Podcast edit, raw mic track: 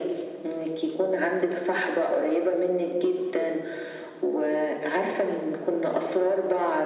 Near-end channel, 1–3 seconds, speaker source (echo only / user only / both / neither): echo only